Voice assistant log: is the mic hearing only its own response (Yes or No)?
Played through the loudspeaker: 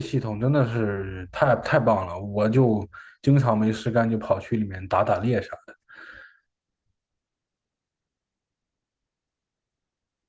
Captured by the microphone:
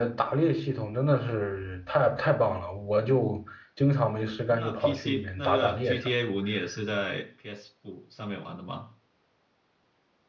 No